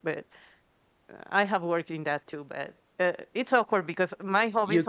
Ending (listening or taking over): taking over